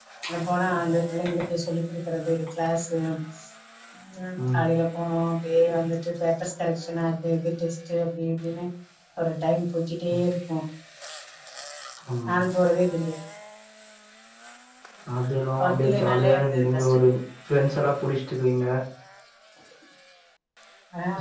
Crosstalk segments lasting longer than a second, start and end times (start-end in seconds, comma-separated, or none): 15.6-16.9